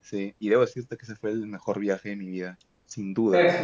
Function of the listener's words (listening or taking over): taking over